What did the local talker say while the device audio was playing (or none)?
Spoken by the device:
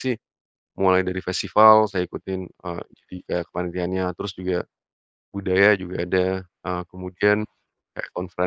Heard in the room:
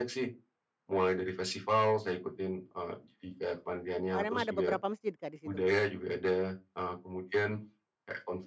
Oh, Emang beberapa masjid Kak di situ Kak.